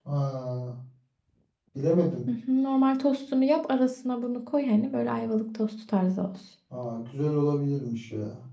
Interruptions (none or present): none